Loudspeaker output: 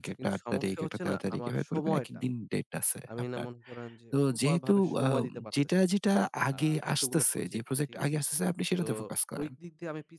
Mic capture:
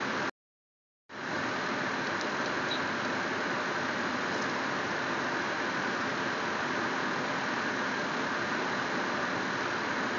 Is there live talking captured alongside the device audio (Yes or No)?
No